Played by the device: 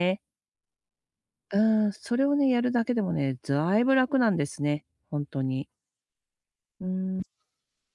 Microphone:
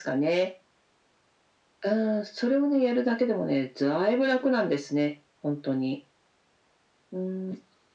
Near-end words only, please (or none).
none